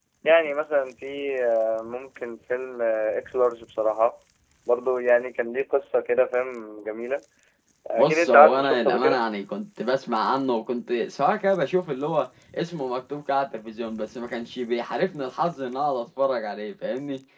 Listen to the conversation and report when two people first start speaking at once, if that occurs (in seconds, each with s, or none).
8.0 s